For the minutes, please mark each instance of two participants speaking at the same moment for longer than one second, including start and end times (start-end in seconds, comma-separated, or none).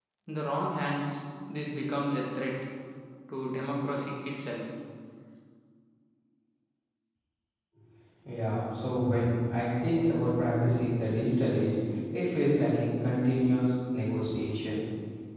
none